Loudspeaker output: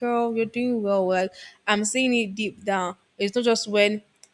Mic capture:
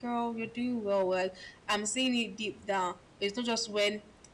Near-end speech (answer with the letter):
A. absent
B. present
A